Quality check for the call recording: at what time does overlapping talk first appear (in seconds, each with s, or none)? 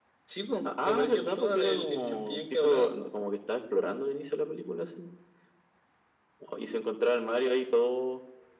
0.7 s